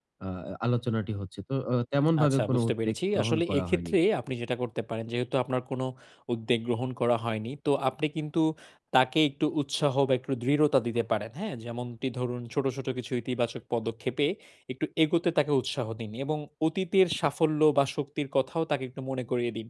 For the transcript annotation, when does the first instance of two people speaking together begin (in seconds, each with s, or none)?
2.2 s